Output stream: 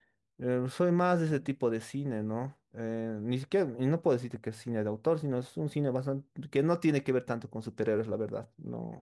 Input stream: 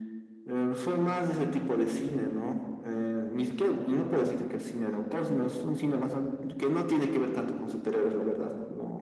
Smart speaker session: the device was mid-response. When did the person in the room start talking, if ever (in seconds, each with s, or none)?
none